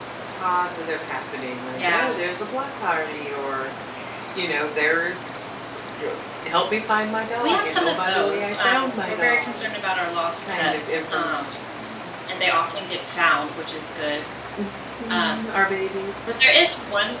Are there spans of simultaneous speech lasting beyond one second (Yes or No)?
Yes